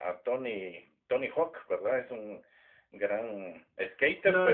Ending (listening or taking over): taking over